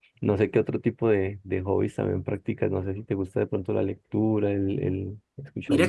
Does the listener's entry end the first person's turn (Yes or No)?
Yes